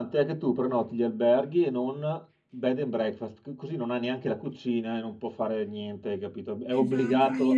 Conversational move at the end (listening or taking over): taking over